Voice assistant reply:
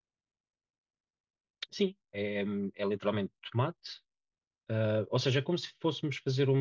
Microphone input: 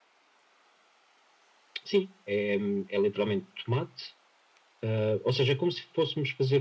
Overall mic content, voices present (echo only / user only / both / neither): echo only